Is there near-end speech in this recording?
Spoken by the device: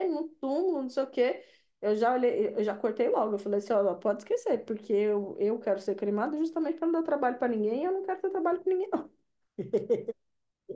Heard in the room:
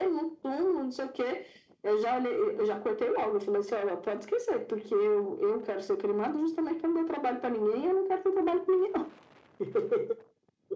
No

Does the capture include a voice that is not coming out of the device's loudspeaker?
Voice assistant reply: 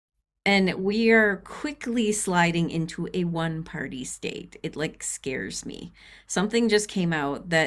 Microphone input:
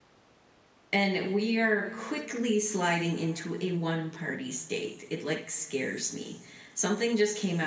No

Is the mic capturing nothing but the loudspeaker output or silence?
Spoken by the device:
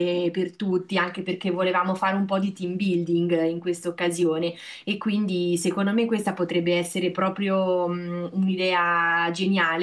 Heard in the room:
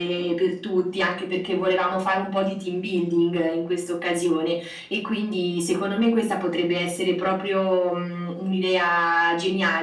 Yes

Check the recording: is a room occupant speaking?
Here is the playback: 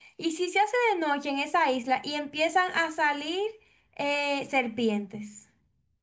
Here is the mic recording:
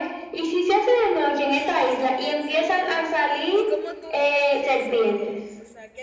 Yes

